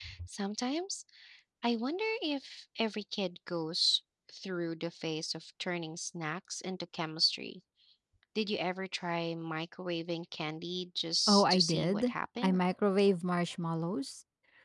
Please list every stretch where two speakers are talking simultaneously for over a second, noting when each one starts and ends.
11.3-12.6

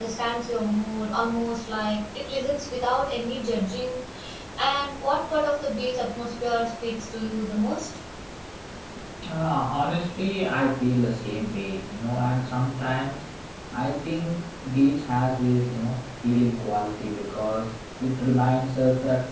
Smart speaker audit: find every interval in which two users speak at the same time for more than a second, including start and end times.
none

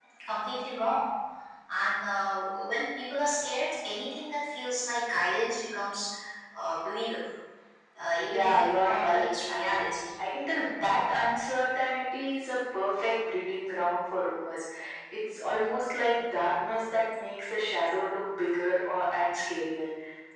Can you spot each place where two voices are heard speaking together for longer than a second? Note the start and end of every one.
8.2-10.0

